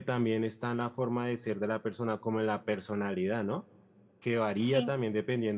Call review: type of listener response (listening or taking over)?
listening